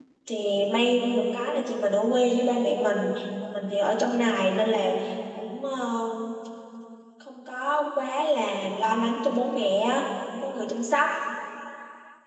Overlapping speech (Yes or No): No